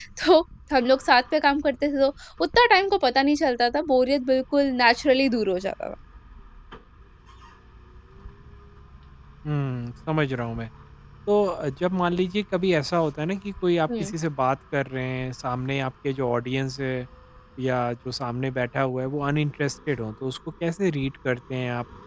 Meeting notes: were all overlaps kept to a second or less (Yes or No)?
Yes